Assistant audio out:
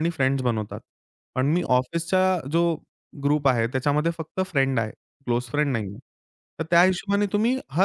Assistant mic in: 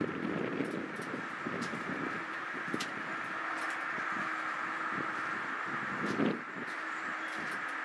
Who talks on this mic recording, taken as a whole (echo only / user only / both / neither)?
neither